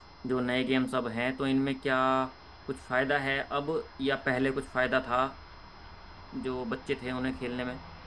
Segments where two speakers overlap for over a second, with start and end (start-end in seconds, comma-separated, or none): none